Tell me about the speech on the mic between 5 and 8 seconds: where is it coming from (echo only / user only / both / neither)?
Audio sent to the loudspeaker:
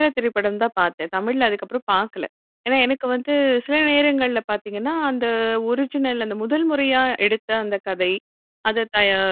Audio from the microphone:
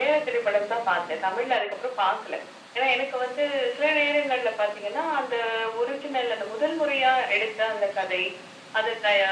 echo only